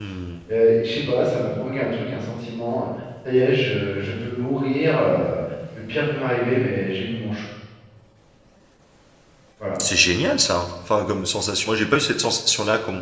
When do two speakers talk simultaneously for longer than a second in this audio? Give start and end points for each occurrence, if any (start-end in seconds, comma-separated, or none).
none